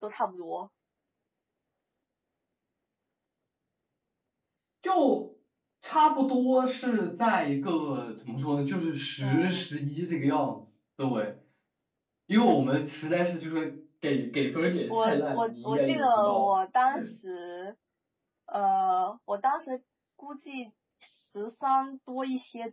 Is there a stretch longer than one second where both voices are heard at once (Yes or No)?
Yes